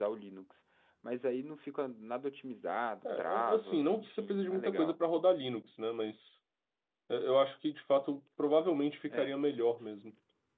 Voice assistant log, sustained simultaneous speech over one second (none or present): present